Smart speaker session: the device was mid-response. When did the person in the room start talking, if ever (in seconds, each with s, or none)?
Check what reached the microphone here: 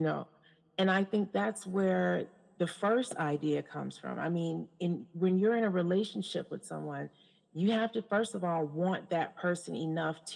none